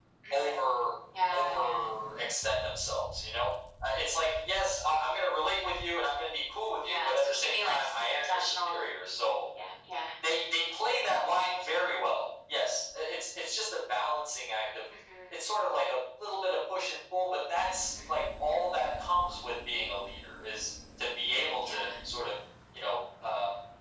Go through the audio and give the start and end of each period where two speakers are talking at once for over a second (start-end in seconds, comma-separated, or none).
6.8-8.8